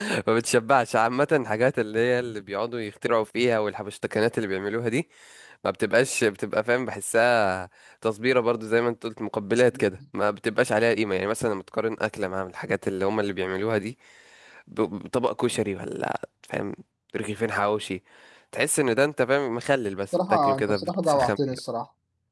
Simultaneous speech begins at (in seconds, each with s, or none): 20.1 s